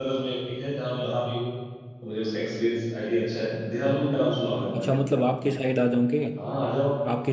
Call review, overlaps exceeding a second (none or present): none